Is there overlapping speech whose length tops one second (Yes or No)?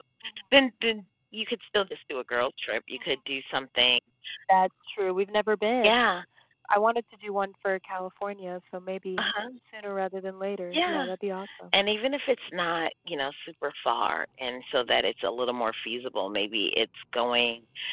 No